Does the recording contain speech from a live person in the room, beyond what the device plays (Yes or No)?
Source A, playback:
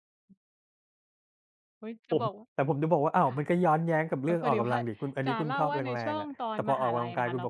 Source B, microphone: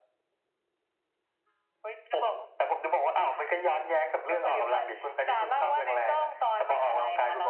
No